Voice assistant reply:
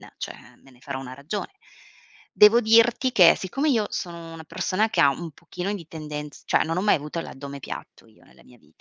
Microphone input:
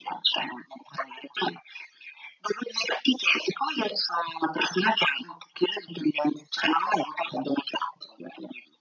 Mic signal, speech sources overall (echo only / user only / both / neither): echo only